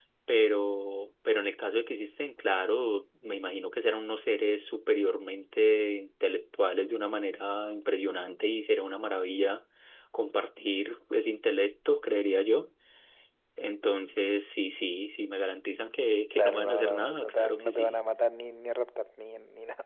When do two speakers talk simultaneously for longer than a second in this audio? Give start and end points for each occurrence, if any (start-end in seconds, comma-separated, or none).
16.3-18.0